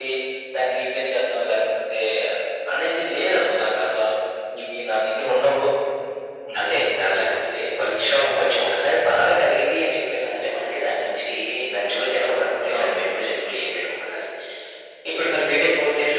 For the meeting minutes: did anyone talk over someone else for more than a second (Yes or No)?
No